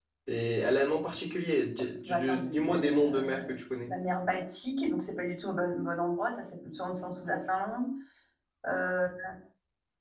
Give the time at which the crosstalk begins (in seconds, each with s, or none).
2.0 s